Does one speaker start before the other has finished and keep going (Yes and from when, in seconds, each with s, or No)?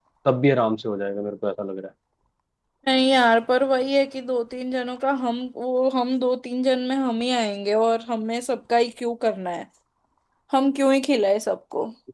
No